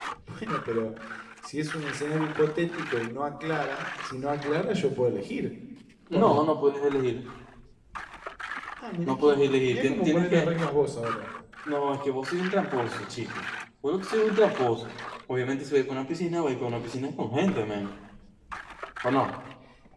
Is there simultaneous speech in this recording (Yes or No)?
Yes